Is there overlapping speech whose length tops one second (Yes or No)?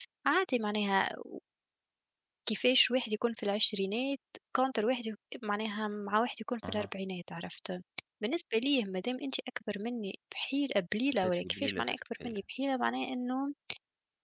Yes